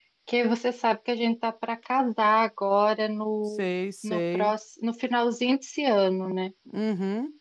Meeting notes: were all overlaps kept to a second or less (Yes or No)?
Yes